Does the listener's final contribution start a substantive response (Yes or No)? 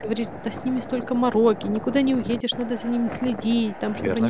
No